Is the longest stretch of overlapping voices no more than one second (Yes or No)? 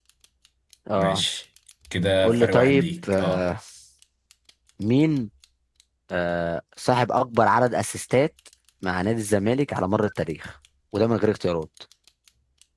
No